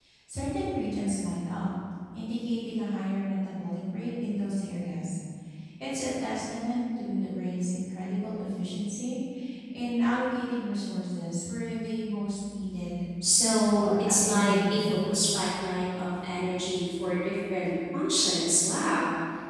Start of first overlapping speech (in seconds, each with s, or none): 13.8 s